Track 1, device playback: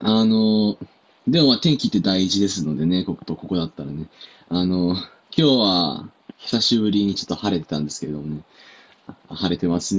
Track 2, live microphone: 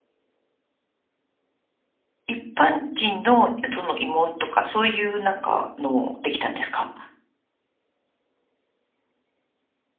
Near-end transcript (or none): 一般人のその慰問とか、そういうなんかのもできたんですか